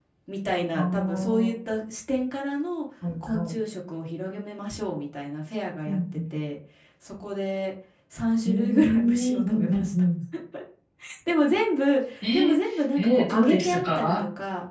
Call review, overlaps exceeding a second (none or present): present